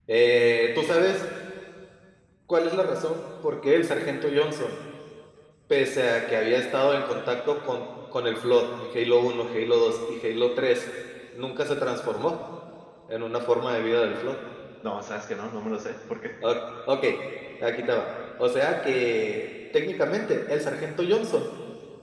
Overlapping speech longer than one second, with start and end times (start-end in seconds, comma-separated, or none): none